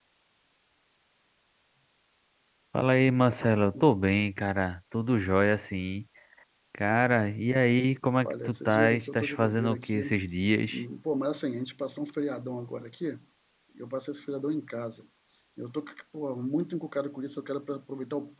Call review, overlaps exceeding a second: present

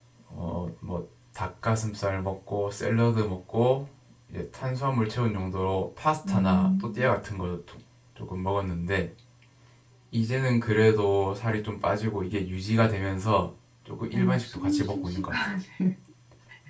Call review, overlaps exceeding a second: present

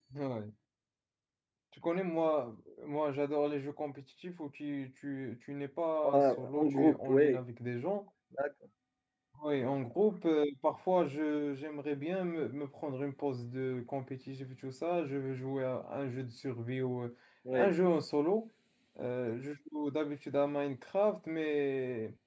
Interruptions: present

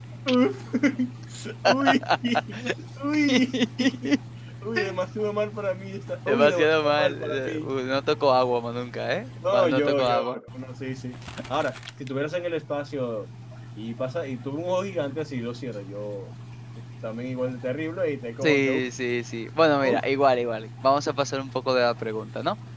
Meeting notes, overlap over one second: present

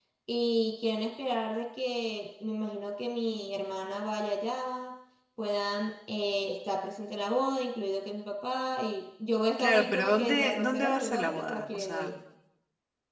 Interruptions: present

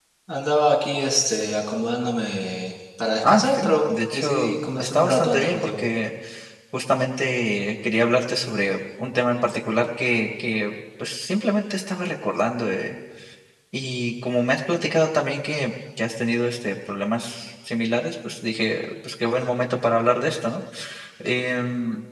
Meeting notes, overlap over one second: present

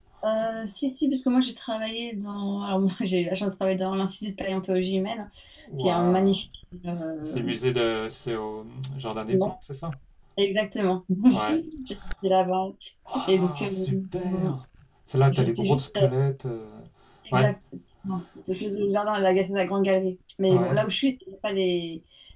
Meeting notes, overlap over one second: present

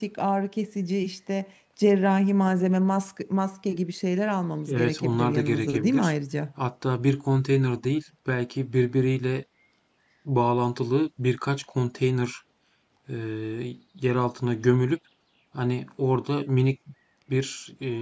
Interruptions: present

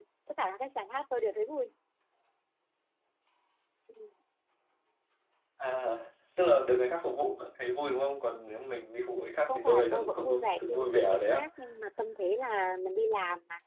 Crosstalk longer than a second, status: present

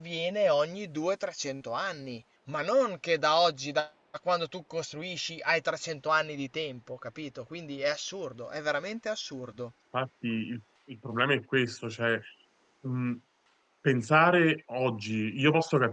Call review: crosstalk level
none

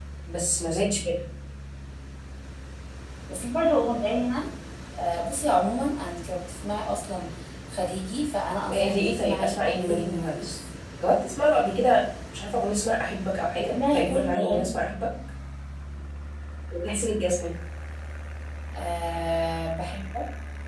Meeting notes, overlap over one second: present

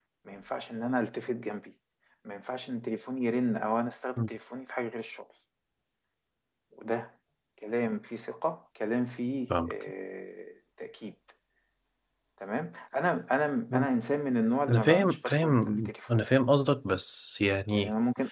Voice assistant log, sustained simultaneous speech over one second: present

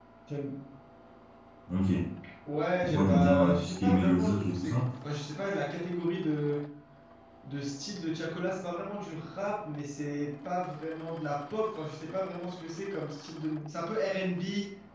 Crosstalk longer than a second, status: present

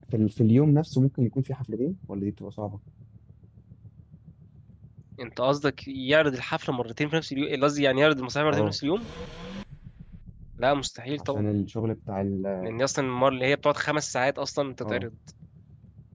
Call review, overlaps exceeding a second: none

